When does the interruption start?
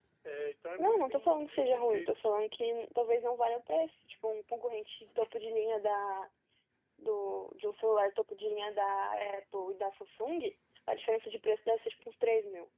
0.8 s

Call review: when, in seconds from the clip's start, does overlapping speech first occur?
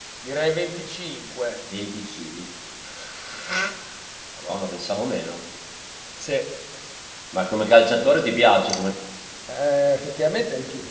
none

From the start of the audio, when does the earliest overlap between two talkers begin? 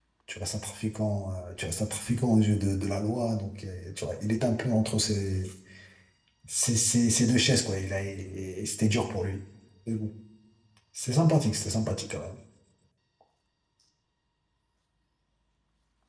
none

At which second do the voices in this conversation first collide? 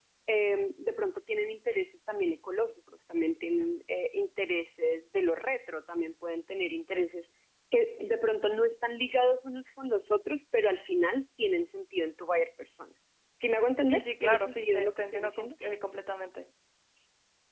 13.8 s

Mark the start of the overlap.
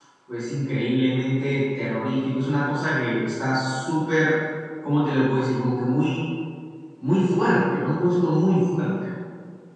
none

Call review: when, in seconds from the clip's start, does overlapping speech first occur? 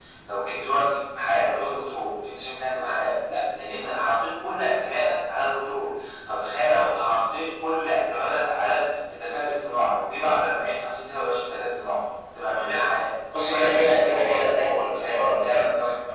13.3 s

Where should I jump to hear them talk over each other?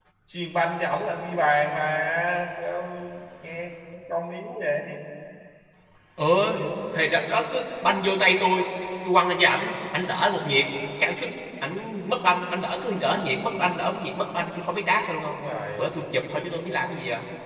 none

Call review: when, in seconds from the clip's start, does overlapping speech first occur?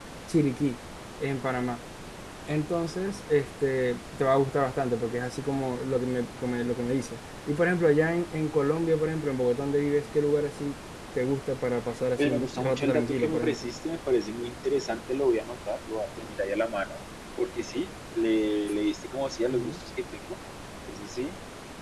12.2 s

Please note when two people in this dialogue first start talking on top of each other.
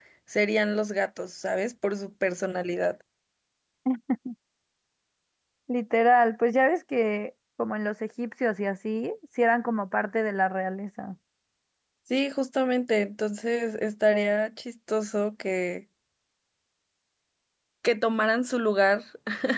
none

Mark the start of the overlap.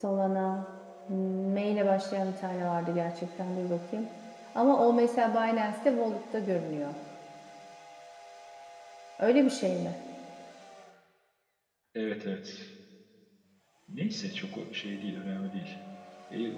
none

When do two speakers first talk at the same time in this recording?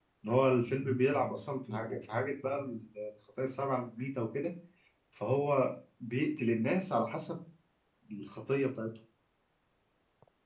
none

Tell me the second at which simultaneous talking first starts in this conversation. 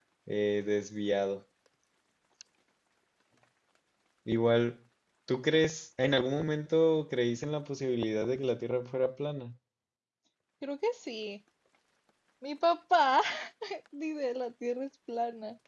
none

